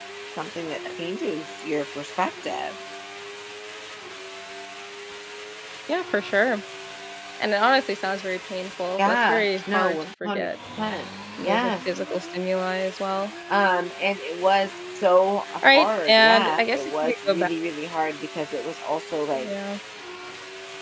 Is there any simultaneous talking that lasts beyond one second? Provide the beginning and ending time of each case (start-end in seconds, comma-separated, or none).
9.0-10.5, 15.7-17.5